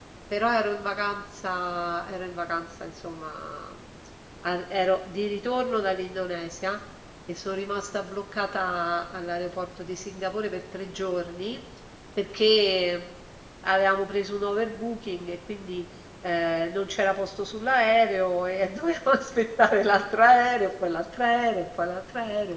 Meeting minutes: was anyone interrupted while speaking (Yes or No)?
No